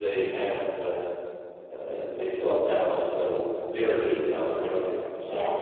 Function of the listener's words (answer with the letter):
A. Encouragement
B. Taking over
A